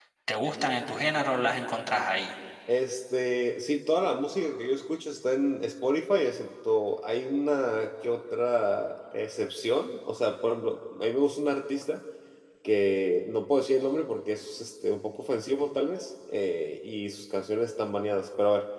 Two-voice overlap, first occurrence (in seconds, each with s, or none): none